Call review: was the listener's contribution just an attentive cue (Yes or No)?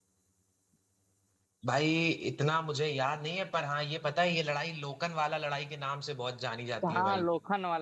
No